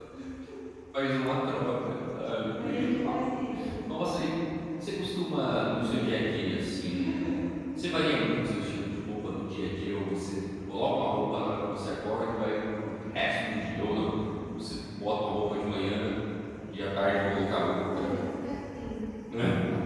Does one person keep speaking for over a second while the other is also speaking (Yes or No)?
No